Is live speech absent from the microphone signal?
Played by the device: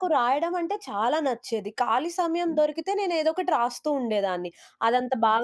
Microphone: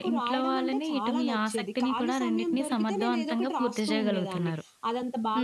No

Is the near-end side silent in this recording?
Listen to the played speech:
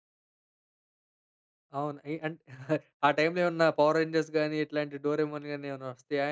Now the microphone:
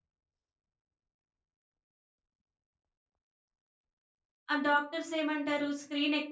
No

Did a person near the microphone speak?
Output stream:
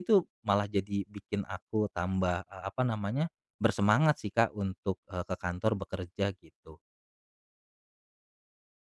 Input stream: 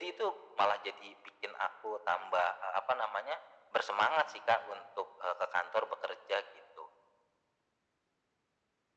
No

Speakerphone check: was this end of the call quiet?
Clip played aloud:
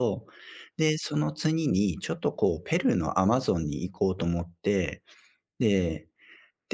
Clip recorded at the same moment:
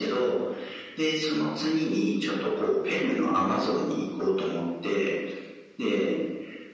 Yes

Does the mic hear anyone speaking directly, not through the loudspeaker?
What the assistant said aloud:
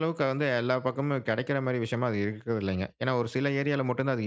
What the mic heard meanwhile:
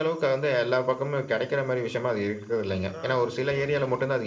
Yes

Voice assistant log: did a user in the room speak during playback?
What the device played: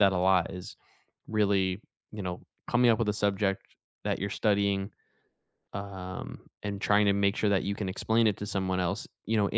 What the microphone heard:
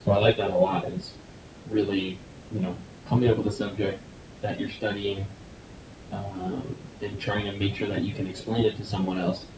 No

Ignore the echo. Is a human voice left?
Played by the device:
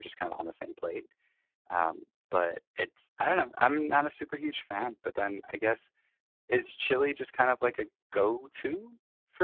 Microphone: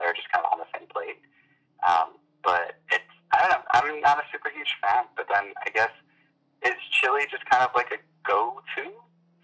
No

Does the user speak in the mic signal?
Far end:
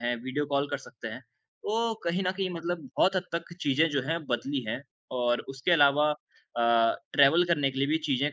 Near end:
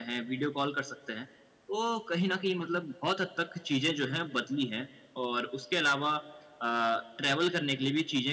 No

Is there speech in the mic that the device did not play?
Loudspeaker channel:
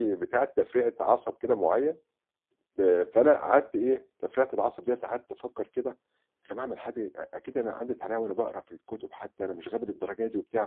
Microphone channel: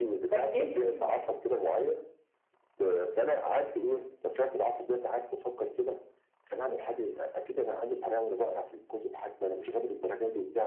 Yes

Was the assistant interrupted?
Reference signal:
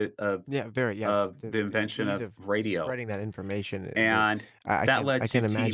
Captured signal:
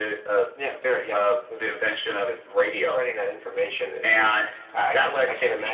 No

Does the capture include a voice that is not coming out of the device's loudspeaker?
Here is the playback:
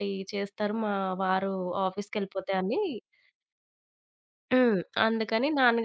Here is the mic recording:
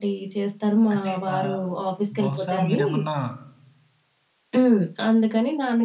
Yes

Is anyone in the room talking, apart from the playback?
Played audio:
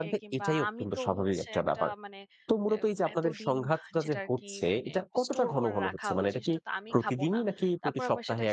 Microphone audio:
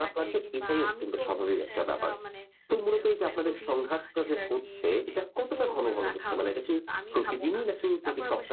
No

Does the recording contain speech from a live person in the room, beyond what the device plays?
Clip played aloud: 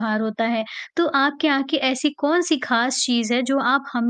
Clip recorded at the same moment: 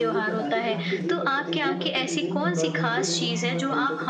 Yes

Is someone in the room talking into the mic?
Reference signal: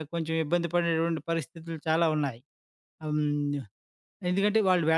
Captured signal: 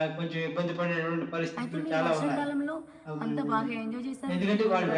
Yes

